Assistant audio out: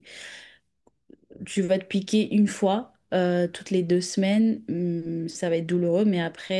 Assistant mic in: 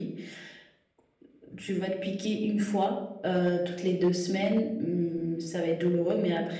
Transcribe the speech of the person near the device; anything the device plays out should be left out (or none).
none